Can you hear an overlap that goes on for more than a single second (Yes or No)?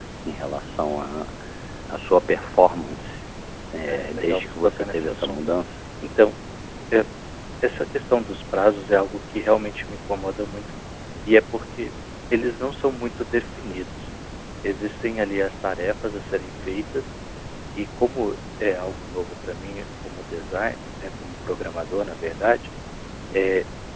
Yes